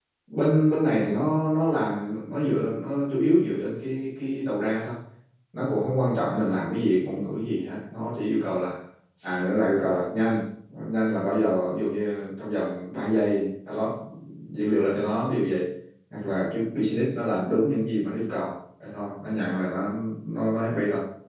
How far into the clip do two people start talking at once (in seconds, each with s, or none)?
none